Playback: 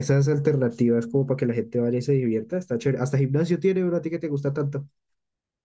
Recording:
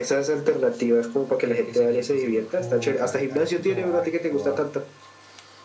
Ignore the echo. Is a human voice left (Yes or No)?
Yes